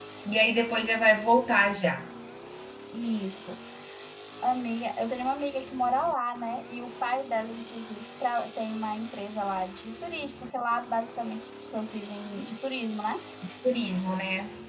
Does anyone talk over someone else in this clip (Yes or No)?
No